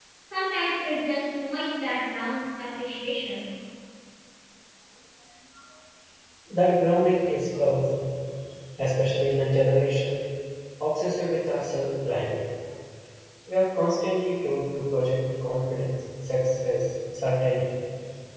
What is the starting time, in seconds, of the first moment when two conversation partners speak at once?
none

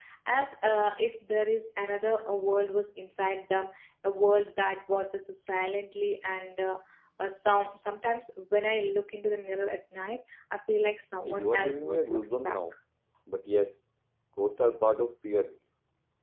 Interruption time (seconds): 11.2 s

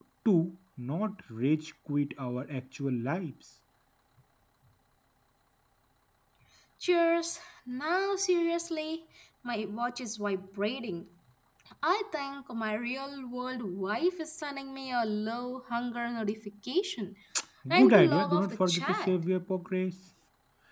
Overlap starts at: 17.7 s

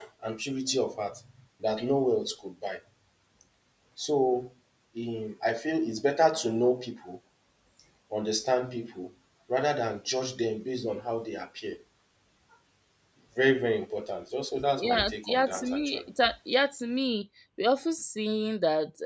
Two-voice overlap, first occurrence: 14.8 s

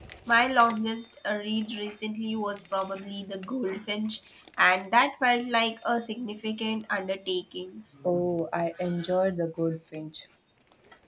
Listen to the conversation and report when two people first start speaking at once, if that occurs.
none

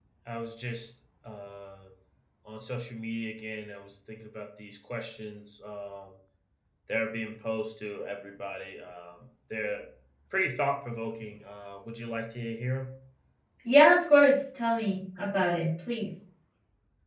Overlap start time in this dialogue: none

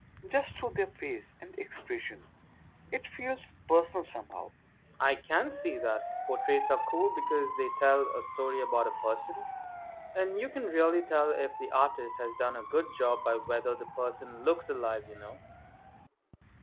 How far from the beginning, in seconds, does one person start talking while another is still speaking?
none

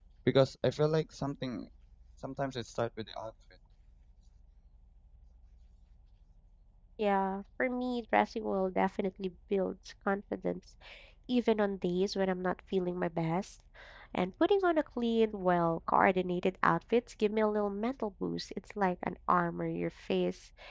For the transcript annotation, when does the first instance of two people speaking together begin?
none

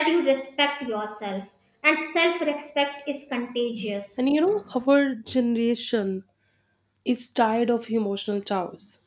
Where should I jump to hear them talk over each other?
none

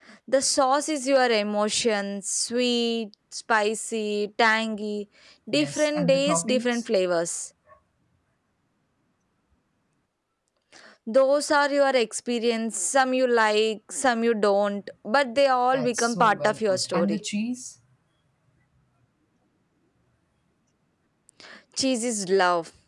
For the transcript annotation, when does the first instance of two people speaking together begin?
5.5 s

